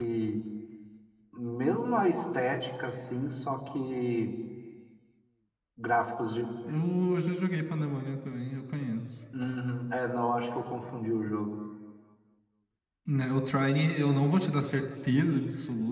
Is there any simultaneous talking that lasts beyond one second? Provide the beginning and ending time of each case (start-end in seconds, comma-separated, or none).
none